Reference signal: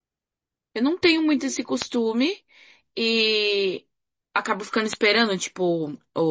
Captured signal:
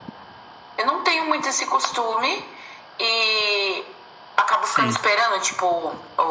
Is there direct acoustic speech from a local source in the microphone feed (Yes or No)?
Yes